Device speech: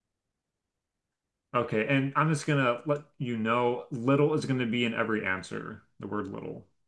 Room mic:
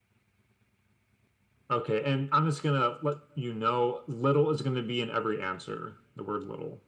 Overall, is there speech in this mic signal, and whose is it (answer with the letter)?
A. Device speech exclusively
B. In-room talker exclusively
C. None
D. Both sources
A